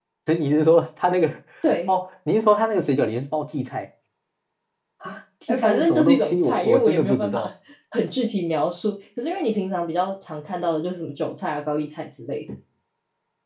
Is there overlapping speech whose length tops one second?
Yes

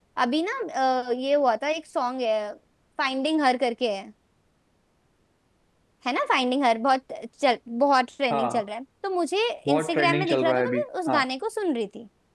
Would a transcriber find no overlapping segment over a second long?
No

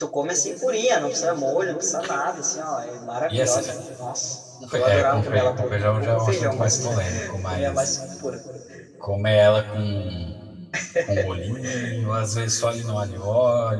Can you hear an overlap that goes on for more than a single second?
Yes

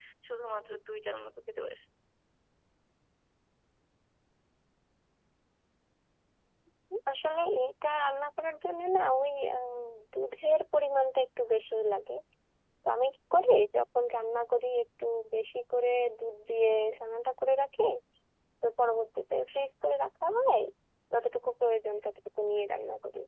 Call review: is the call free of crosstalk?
Yes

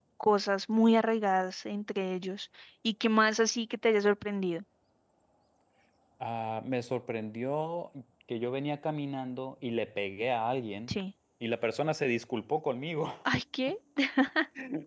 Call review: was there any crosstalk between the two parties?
No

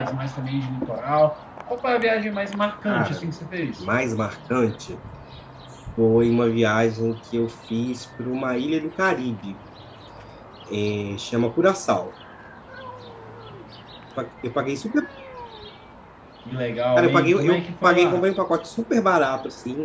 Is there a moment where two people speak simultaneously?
Yes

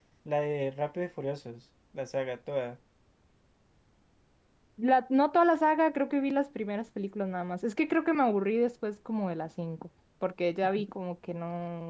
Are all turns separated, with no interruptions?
Yes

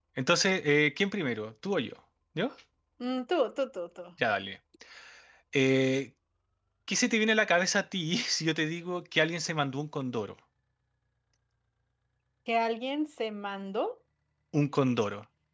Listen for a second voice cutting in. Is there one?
No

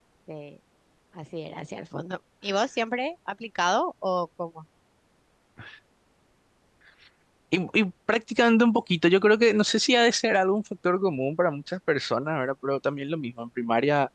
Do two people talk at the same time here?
No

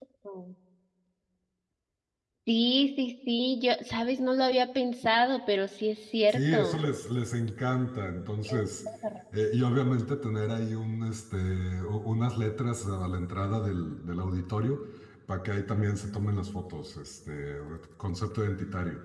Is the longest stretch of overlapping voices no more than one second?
Yes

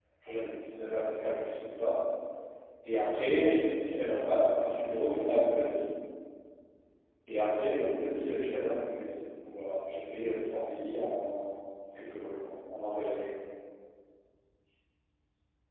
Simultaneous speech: No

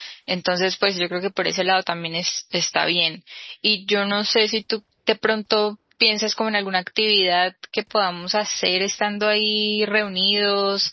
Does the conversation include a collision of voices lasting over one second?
No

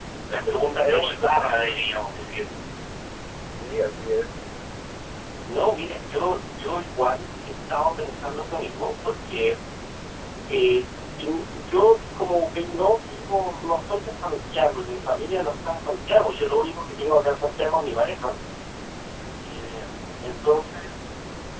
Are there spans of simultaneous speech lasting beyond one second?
Yes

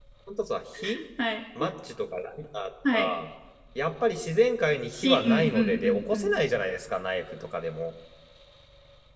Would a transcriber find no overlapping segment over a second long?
No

